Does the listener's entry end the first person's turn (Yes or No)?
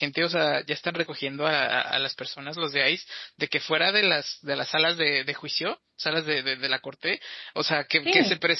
No